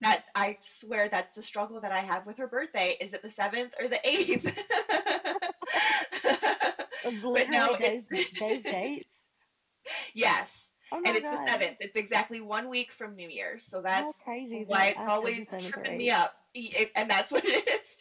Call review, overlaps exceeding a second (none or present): present